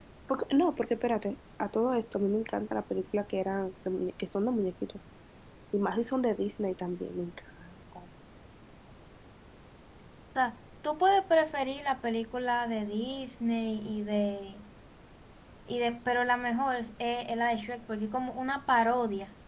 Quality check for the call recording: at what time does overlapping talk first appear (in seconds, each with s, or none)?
none